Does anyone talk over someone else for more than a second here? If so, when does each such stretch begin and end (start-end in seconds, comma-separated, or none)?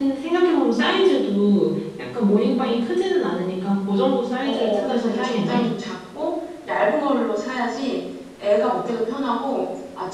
4.4-5.7